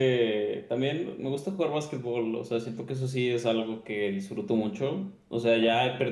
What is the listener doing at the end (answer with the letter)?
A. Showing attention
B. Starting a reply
A